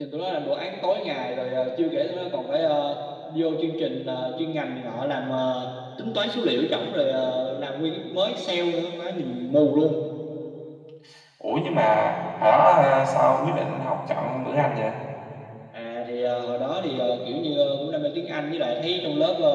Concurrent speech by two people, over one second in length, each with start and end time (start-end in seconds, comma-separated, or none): none